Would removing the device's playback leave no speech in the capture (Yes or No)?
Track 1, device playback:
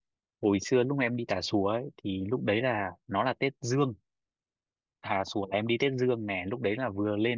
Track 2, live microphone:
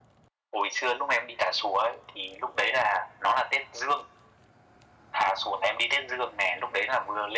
Yes